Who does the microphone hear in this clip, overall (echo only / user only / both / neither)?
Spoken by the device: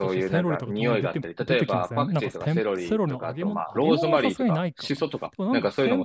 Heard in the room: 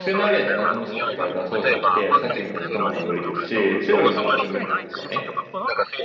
both